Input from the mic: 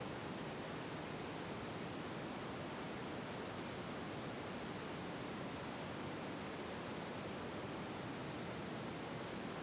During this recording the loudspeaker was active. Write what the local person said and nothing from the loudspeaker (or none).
none